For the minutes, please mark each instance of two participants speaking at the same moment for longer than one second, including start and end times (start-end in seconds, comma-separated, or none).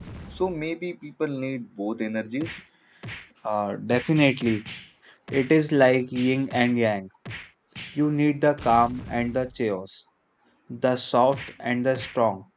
none